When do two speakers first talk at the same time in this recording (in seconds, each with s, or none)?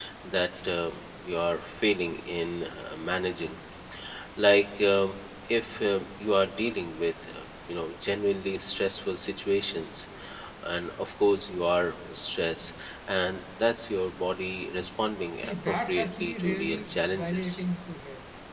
15.4 s